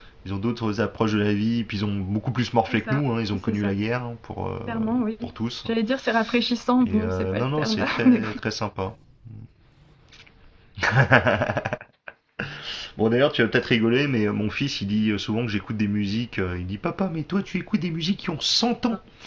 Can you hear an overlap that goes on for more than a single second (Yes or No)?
Yes